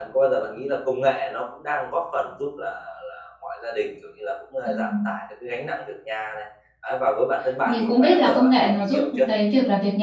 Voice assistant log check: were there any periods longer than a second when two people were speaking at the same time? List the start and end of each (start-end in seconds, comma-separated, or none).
7.7-9.2